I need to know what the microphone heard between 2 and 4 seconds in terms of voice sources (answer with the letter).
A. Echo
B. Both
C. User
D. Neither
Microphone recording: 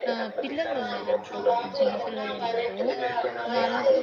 B